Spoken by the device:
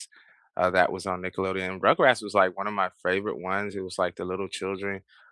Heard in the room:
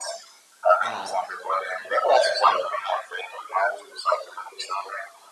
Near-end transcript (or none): uh,